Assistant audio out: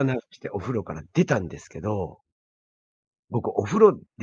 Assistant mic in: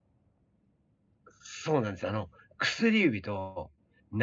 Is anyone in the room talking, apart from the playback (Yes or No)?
Yes